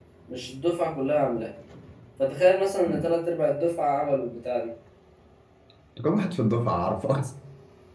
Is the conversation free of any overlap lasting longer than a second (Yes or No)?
Yes